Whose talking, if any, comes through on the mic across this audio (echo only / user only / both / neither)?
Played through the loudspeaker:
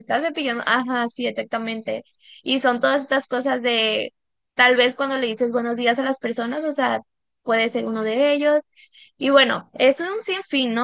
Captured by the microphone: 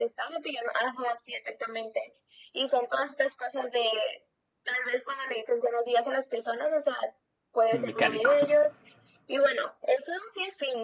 both